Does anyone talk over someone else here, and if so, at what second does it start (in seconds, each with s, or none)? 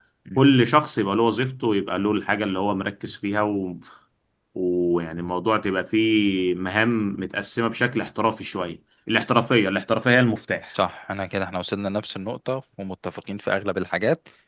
none